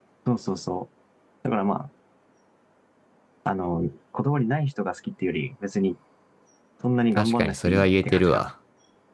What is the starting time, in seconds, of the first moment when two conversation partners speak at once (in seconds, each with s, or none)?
7.2 s